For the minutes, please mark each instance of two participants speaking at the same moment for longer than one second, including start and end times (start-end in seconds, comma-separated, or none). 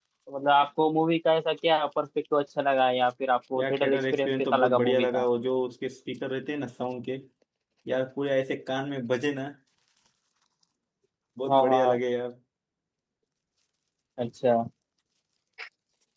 3.6-5.2